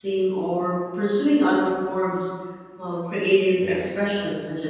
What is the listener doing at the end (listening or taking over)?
listening